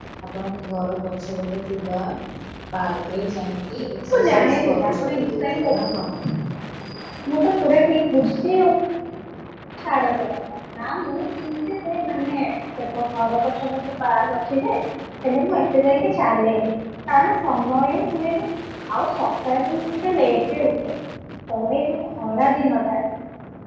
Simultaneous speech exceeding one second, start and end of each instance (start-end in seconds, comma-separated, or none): 4.1-6.0